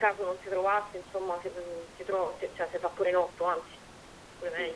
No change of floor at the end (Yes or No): No